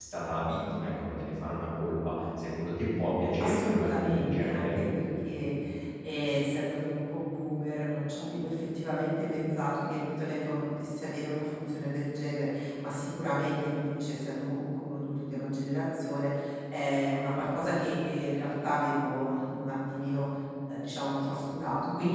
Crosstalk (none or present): present